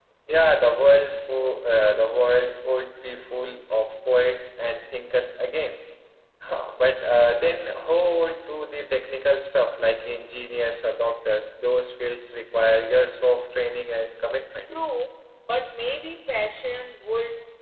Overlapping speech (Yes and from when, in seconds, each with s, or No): No